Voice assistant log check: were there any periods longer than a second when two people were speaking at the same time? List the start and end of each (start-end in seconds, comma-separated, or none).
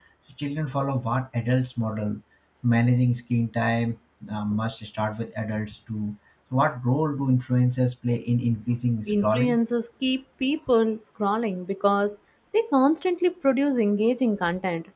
none